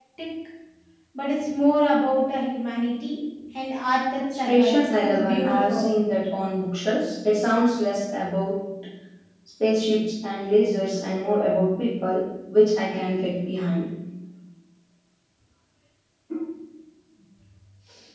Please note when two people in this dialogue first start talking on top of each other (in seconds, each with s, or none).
4.4 s